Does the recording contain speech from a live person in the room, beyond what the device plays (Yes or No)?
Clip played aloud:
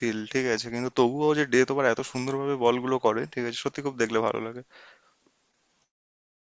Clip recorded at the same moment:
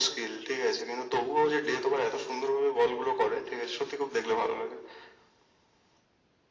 No